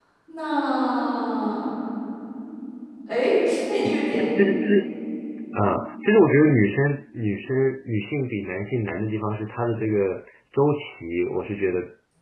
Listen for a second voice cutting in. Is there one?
No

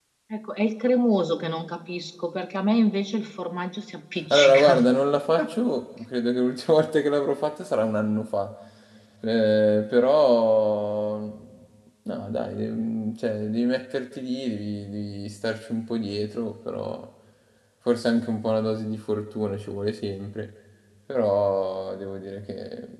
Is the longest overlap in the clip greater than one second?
No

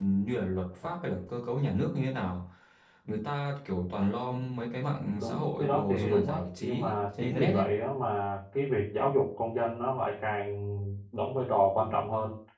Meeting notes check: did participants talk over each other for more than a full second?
Yes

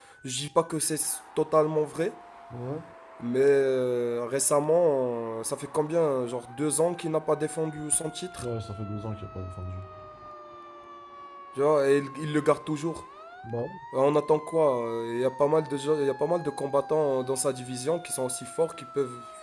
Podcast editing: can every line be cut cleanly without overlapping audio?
Yes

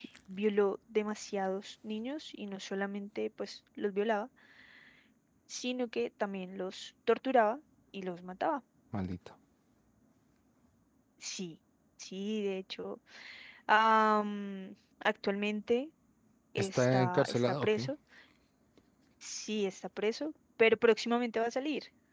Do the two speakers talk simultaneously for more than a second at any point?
Yes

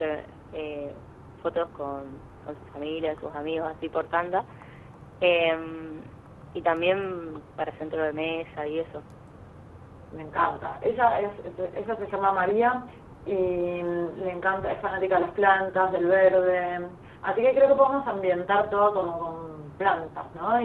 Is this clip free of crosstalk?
Yes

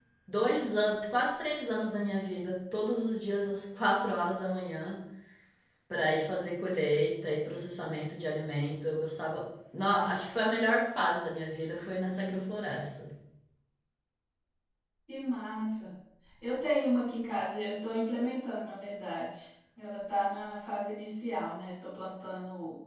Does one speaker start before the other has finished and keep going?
No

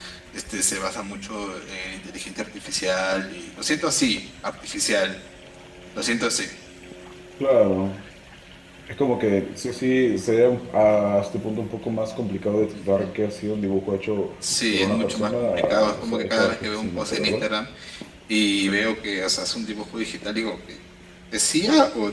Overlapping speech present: Yes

